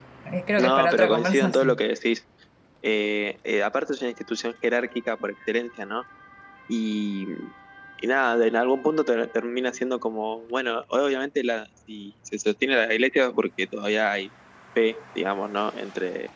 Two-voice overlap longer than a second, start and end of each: 0.6-1.8

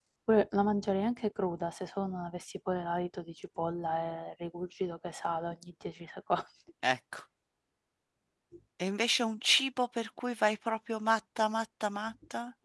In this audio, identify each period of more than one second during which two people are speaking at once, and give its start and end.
none

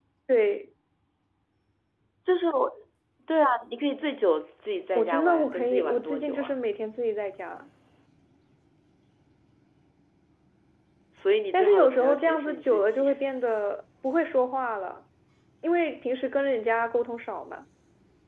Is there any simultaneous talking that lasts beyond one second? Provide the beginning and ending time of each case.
5.0-6.5, 11.5-13.1

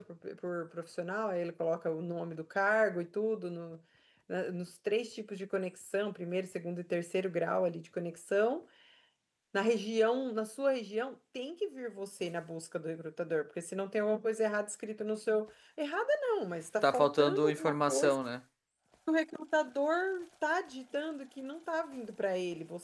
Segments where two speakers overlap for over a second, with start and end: 16.8-18.2

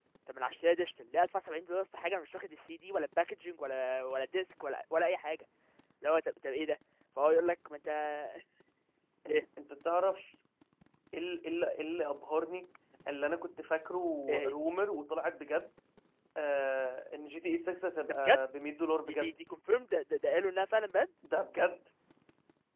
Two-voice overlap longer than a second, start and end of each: none

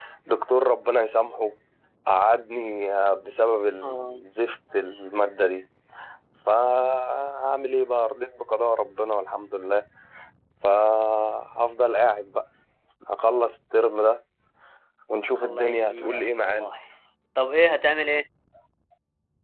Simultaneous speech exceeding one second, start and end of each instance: 15.4-16.7

